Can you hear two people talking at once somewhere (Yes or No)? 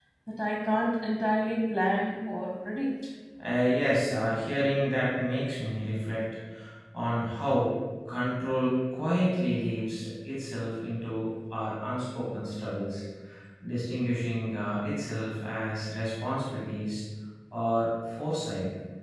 No